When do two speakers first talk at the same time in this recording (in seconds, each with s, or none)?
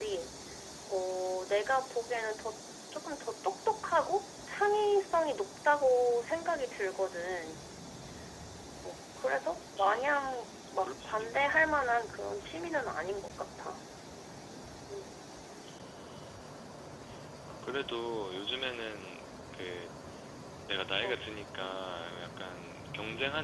9.8 s